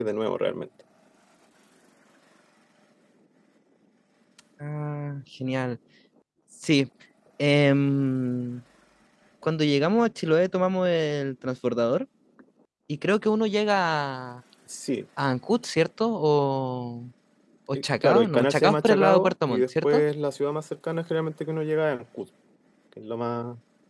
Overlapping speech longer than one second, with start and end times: 18.0-20.0

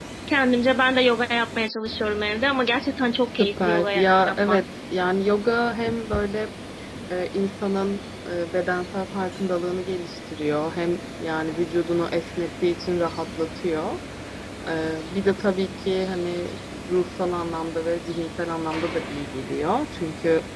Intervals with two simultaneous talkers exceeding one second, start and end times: 3.2-4.6

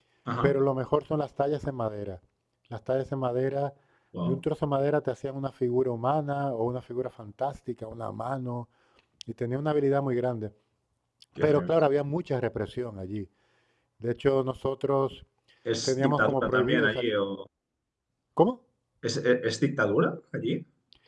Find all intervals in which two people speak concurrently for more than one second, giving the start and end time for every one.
15.8-17.1

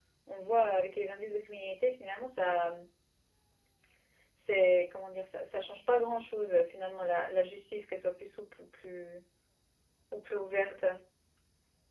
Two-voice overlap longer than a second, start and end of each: none

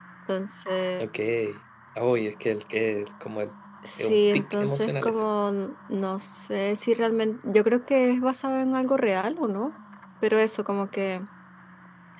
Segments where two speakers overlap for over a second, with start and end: 4.0-5.2

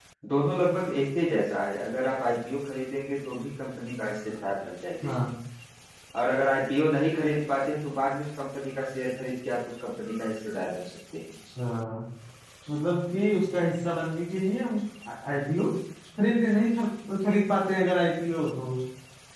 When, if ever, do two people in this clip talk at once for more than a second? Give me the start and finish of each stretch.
none

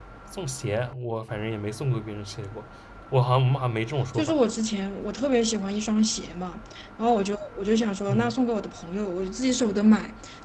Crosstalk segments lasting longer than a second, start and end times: none

